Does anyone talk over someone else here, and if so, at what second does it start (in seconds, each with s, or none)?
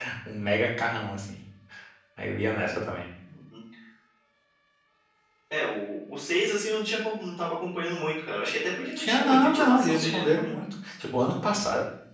9.0 s